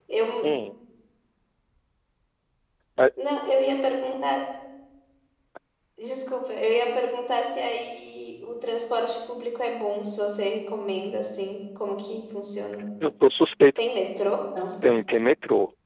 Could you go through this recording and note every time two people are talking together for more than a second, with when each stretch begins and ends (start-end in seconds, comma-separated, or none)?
none